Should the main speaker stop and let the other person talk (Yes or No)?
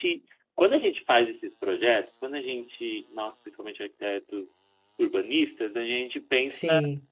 No